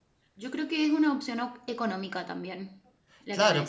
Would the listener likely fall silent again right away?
No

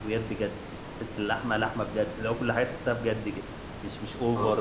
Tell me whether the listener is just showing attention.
Yes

